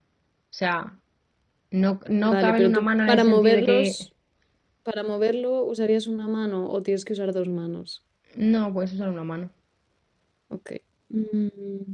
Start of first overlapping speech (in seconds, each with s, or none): 2.3 s